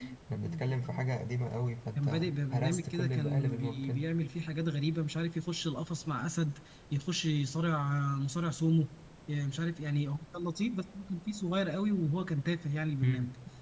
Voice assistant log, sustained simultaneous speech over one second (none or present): present